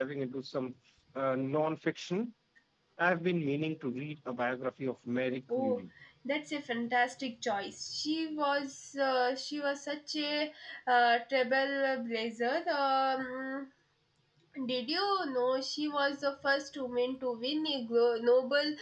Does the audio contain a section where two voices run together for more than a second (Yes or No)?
No